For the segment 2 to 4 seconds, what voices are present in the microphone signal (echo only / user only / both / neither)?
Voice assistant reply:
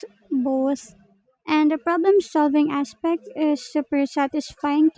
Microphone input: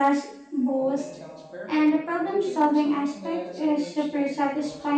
both